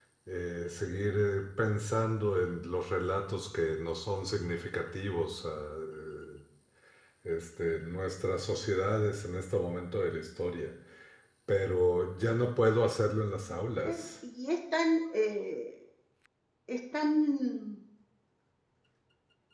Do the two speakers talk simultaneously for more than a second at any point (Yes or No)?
No